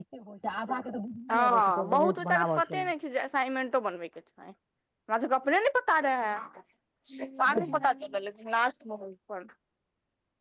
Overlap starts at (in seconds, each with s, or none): 1.5 s